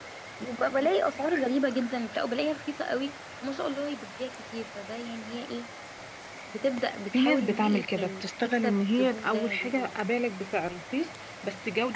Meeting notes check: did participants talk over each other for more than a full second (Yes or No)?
Yes